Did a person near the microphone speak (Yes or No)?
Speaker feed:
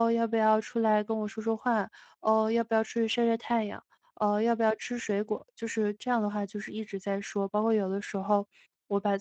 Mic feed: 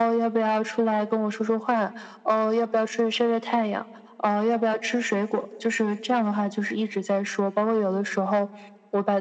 No